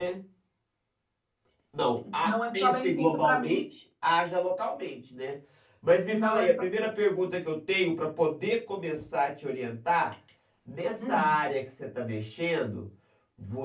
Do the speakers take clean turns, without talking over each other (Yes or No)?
No